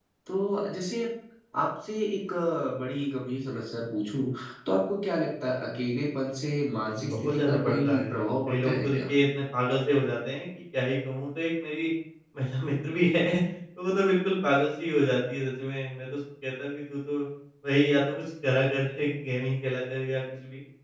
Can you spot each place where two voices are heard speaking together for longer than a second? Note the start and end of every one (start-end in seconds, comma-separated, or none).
6.9-9.1